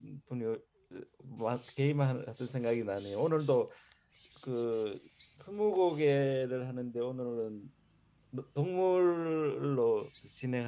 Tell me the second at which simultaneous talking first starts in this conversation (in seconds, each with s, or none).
none